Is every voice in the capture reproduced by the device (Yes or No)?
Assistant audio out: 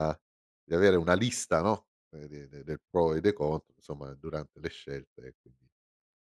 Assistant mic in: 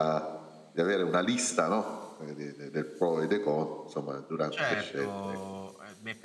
No